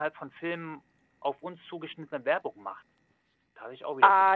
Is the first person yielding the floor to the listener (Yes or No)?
Yes